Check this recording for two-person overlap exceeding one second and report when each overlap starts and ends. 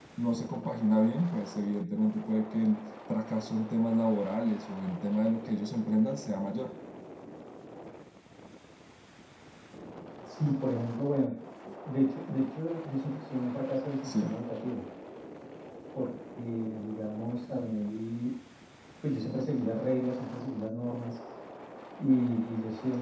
none

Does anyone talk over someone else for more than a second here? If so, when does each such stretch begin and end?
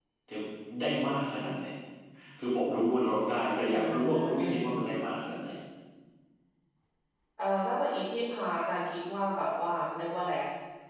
3.6-5.0

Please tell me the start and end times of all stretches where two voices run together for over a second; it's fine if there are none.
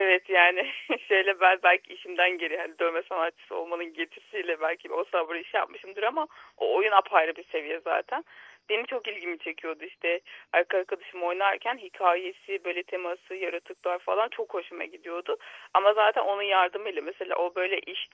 none

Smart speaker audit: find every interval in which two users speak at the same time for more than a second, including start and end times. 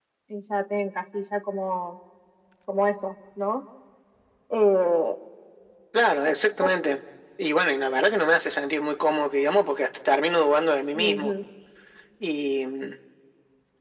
none

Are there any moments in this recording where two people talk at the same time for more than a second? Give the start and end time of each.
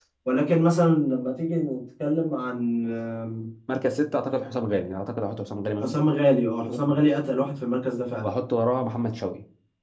none

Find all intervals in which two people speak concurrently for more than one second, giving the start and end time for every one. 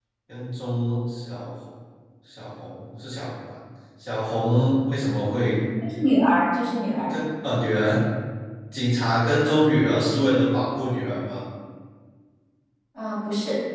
none

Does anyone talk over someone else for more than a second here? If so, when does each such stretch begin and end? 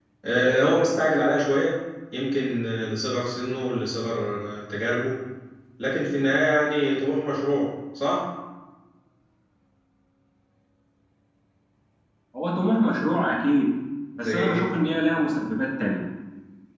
none

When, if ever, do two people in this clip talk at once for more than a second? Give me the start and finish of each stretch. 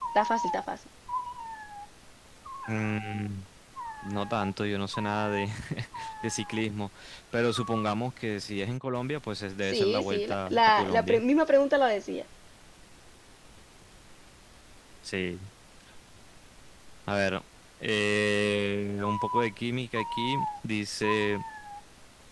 9.6-11.2

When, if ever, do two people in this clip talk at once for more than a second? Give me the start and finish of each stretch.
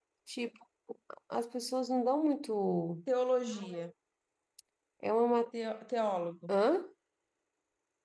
none

